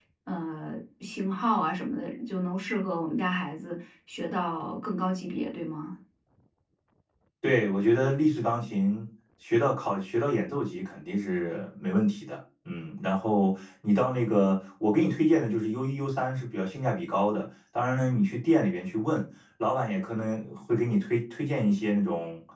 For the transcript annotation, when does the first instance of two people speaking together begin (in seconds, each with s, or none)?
none